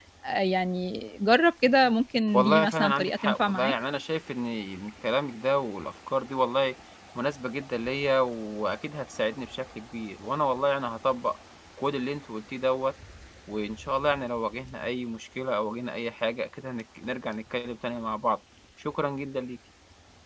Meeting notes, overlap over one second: present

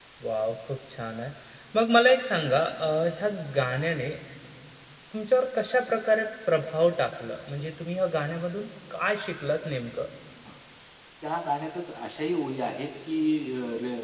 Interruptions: none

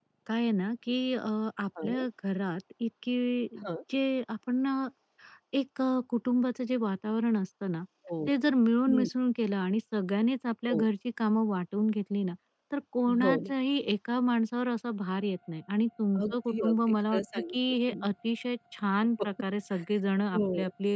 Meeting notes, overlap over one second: present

